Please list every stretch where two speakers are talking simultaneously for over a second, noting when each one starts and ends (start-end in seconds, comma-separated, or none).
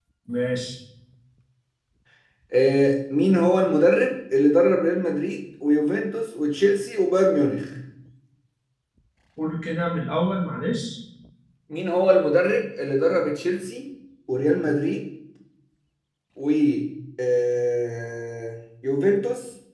none